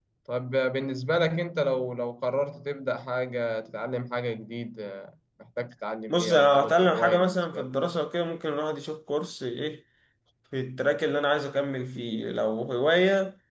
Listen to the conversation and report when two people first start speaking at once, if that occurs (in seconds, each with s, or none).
6.1 s